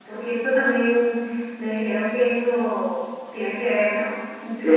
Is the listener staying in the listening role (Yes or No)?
No